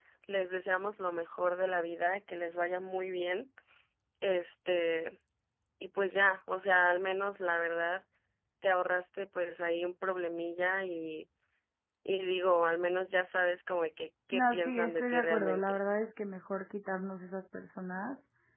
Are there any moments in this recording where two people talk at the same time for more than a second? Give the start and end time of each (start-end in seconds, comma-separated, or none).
14.3-15.8